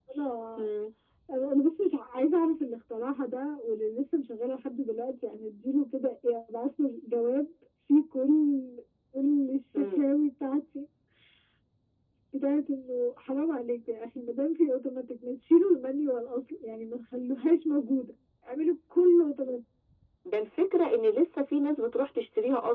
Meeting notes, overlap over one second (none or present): none